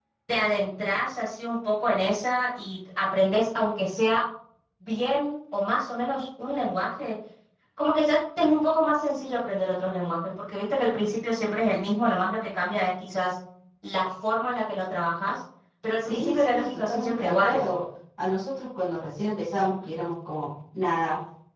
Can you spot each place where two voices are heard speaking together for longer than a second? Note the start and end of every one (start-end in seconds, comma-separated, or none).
16.0-17.6